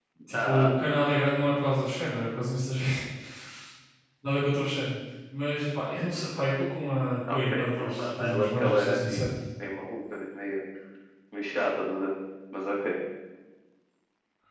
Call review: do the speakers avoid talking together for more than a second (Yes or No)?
No